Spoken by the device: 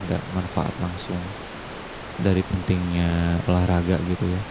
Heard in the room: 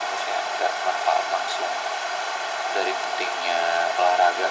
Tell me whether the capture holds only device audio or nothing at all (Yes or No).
Yes